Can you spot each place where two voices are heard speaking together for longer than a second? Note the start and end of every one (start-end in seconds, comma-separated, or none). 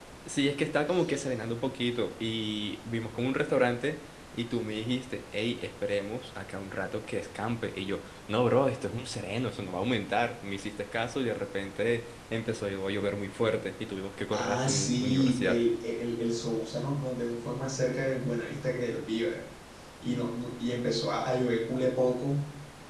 14.4-15.6